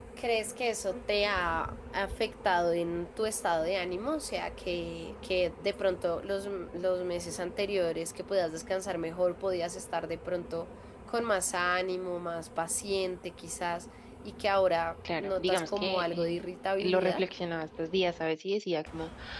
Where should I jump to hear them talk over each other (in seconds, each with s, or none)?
15.1 s